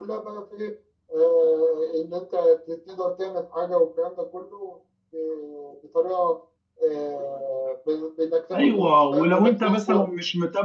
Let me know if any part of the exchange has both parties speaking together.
Yes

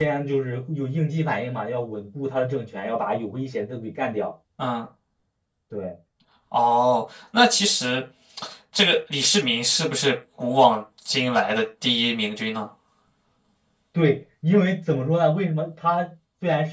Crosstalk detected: No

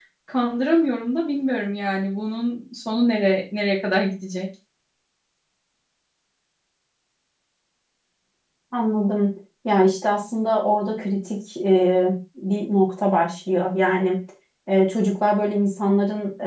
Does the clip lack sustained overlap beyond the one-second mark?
Yes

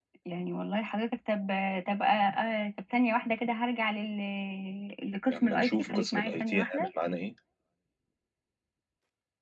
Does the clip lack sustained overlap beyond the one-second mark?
No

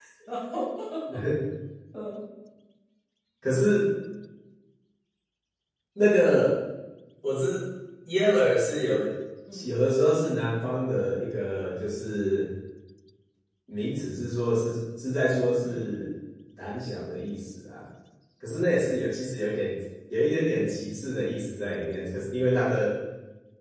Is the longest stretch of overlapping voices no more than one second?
Yes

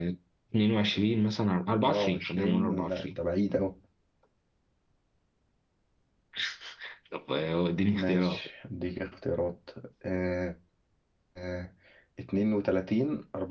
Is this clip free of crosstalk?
No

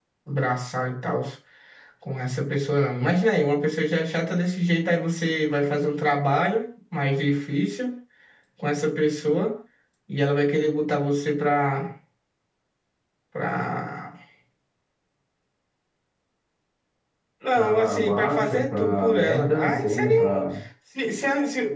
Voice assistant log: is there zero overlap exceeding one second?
No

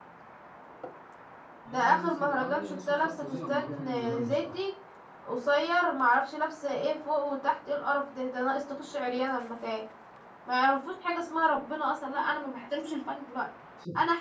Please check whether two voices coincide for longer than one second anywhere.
Yes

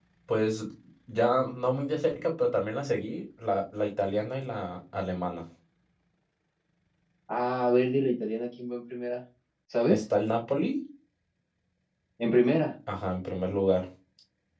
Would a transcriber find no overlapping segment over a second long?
Yes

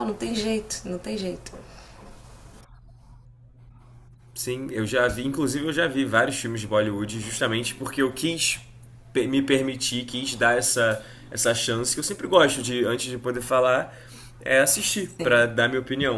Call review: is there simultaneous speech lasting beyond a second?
No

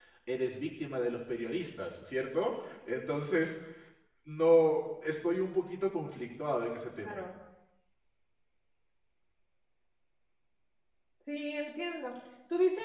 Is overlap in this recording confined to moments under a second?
Yes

